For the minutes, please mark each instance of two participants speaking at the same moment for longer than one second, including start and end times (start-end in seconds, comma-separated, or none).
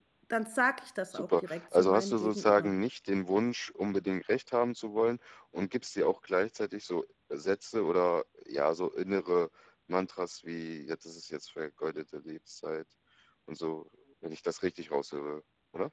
1.1-2.7